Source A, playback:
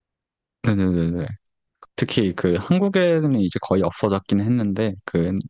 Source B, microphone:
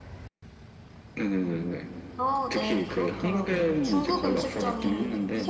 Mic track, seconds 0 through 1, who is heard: neither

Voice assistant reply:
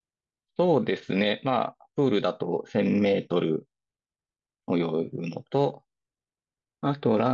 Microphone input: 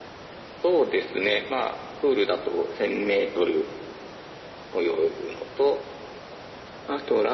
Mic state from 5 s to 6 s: echo only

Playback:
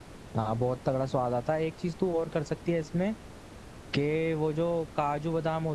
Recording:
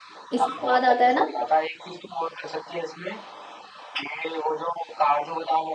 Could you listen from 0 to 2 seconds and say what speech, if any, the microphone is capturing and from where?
both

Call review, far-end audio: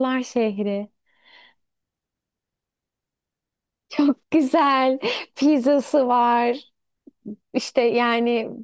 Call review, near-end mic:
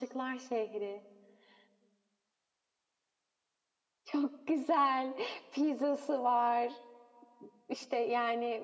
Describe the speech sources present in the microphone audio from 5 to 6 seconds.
echo only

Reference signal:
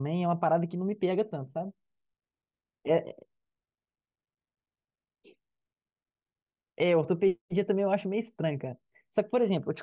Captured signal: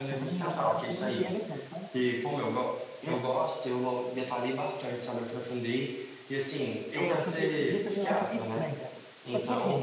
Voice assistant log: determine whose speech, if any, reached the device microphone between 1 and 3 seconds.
both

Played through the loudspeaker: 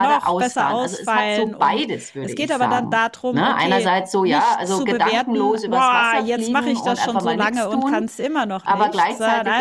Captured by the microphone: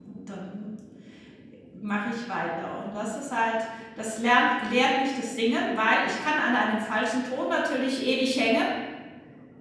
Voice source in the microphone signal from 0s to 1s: user only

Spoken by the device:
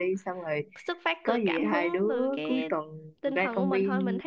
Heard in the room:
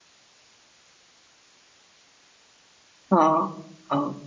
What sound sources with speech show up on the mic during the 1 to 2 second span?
neither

